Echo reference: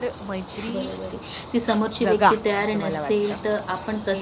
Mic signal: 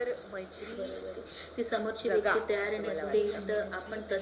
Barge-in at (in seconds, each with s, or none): 2.8 s